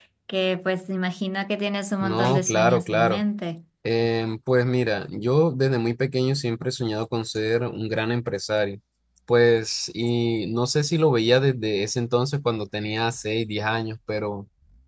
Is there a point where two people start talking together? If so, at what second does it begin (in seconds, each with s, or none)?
2.0 s